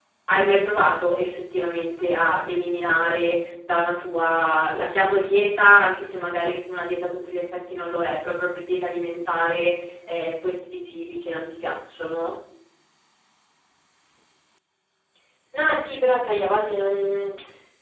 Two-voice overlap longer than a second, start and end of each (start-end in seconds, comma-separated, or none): none